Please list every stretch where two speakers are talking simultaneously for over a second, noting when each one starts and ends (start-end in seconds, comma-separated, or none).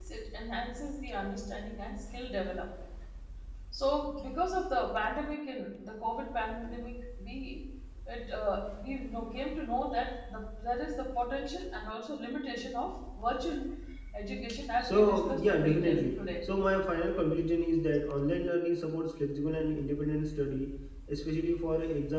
14.8-16.2